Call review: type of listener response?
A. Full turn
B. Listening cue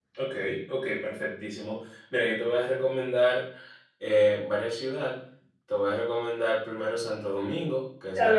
A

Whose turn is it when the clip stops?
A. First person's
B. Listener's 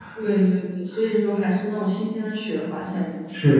B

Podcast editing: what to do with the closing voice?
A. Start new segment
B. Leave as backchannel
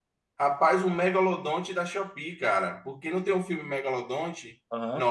B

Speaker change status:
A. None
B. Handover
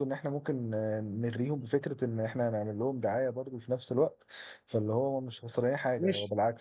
B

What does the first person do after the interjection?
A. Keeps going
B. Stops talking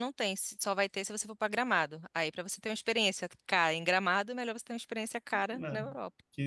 B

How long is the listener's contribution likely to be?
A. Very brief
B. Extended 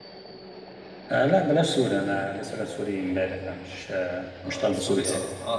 B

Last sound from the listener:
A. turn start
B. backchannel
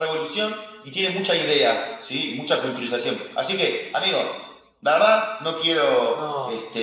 B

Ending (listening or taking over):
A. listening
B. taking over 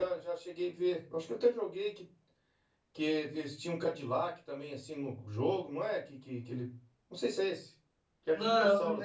B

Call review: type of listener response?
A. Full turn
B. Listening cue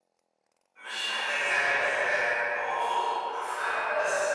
A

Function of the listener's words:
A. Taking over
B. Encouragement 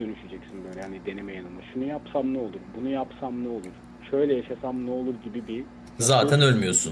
B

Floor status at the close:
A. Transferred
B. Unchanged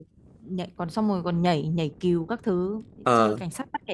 B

